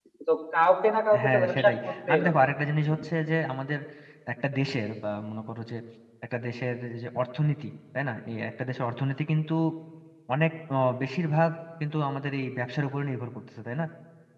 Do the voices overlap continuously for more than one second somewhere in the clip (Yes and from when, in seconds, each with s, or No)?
Yes, from 1.2 s